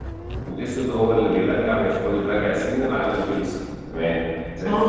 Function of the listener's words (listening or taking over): taking over